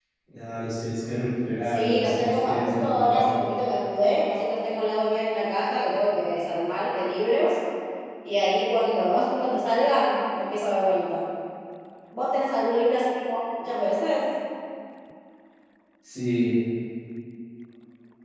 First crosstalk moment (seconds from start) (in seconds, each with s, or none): 1.6 s